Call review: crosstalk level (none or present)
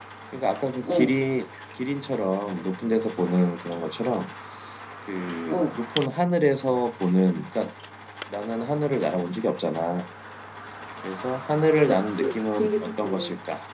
present